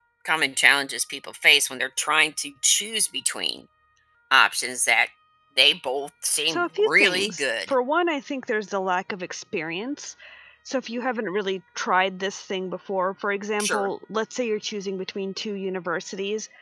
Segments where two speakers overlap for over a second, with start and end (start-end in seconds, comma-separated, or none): 6.5-7.7